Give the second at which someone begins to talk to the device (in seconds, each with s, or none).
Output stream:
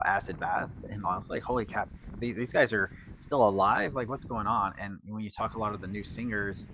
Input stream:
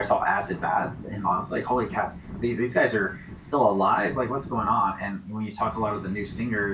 none